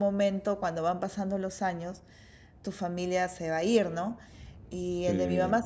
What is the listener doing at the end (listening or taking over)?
listening